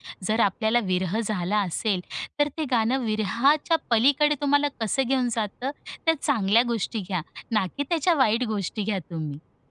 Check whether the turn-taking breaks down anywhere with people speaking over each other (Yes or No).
No